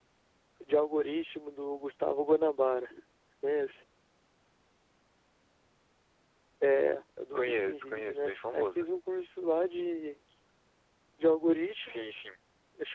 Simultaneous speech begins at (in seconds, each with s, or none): 7.3 s